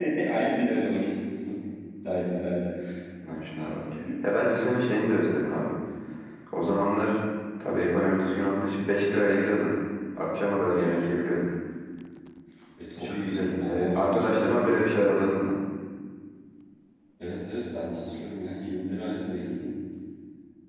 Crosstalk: present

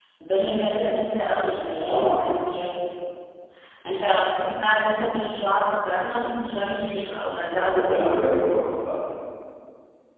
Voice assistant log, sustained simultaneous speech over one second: none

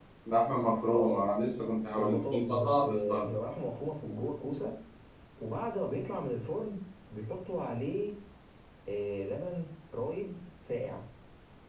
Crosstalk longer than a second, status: present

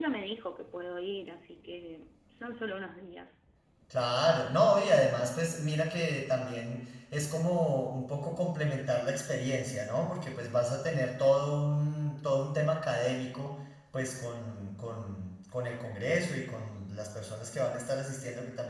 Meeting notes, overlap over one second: none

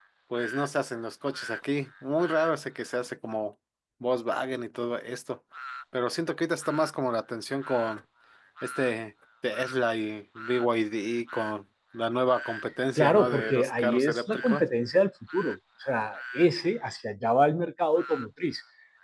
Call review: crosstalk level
present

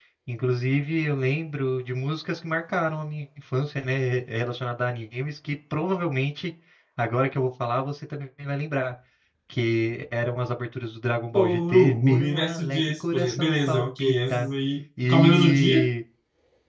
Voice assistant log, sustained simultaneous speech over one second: present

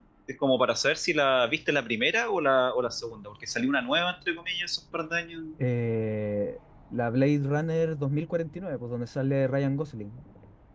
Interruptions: none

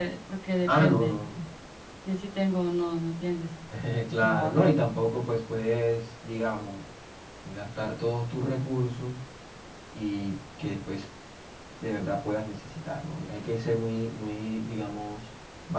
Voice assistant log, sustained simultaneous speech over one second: none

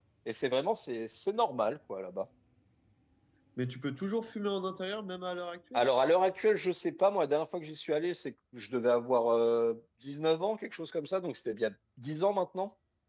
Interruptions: none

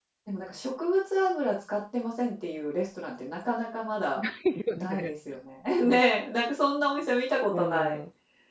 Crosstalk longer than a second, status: none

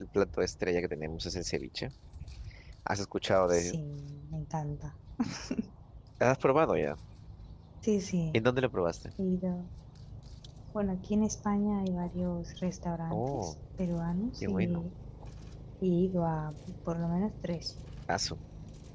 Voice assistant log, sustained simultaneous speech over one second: none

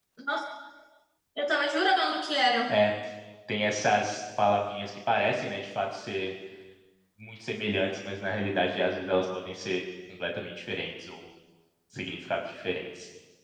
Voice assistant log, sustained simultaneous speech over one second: none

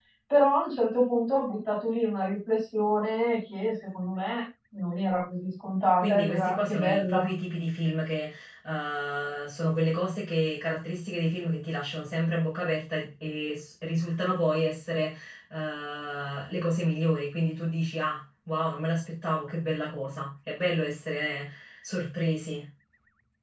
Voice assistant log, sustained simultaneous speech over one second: present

